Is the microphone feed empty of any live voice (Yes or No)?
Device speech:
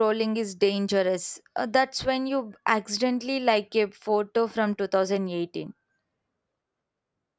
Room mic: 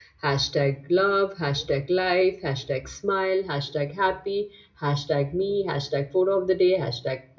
No